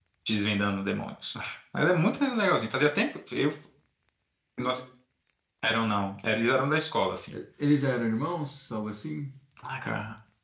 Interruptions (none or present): none